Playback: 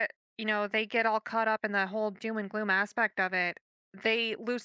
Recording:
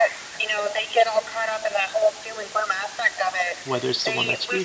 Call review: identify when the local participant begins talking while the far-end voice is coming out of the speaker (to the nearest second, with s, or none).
4 s